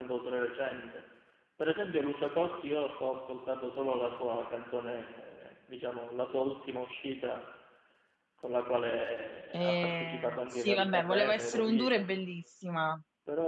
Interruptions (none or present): present